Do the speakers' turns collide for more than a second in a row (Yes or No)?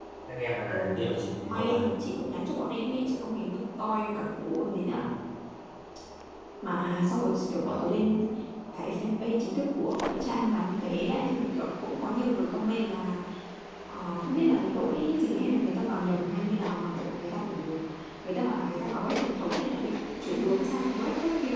No